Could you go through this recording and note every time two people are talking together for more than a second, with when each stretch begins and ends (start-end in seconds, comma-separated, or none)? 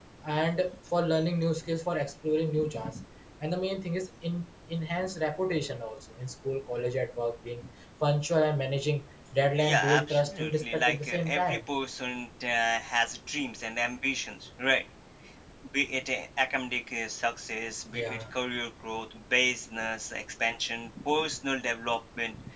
9.7-11.6